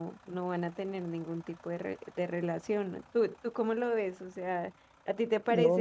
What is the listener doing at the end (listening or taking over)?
taking over